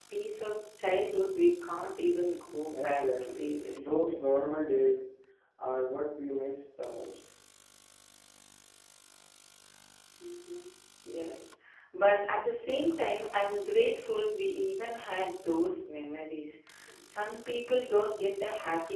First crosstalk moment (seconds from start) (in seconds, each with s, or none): 2.7 s